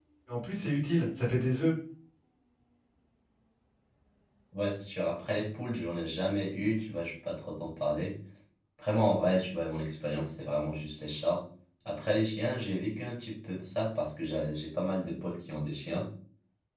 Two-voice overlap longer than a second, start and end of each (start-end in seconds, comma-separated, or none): none